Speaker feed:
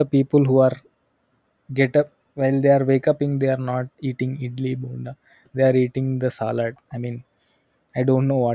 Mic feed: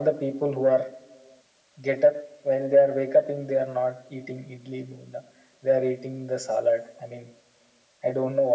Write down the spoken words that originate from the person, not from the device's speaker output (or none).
none